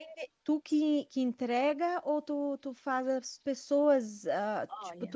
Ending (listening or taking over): listening